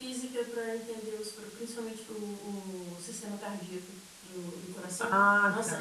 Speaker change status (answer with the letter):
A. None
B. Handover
A